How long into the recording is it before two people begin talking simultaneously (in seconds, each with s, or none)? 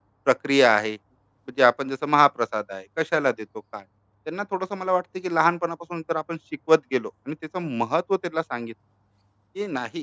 none